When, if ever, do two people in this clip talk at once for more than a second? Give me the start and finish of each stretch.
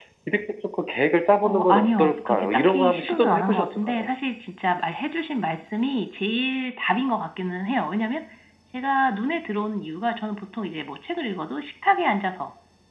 1.4-4.1

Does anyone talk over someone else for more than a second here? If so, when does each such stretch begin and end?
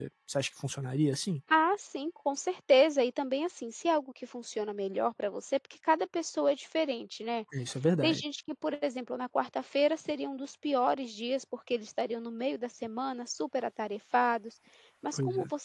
none

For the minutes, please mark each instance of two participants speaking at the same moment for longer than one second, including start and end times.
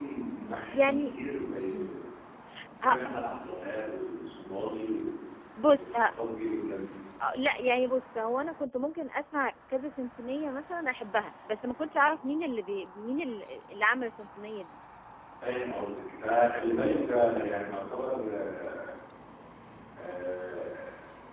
none

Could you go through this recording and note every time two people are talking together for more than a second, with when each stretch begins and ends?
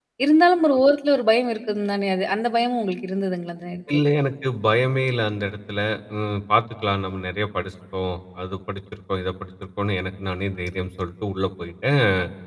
none

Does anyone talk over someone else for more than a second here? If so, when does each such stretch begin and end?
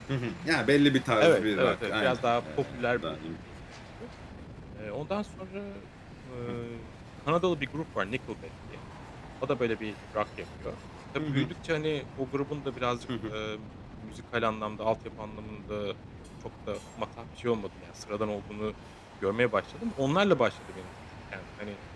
1.2-3.2

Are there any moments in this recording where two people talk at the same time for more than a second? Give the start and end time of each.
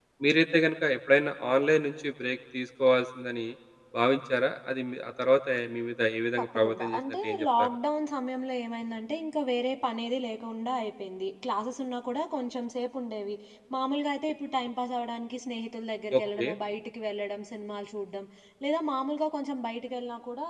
6.4-7.7

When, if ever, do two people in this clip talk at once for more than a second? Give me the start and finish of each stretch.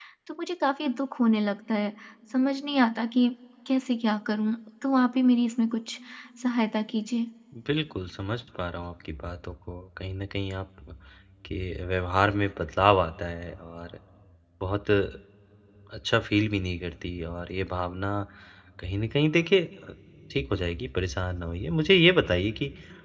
none

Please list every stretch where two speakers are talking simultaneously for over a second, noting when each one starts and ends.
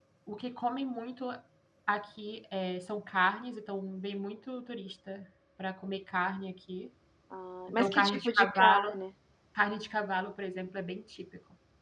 7.7-9.0

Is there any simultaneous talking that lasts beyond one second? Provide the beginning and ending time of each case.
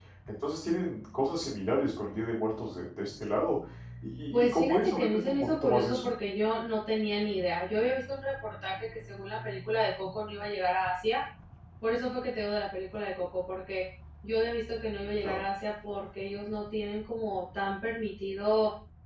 4.3-6.1

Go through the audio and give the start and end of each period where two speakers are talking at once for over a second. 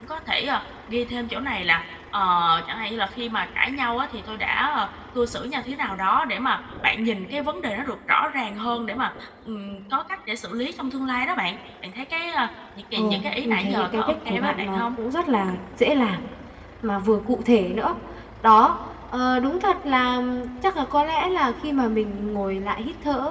13.0-14.9

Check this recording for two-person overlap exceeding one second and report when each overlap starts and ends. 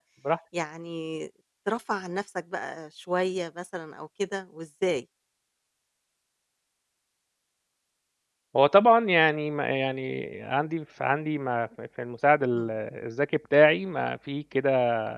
none

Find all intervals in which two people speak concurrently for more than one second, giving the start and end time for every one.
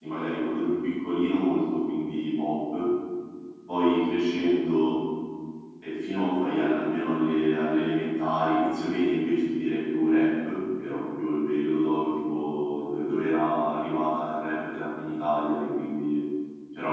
none

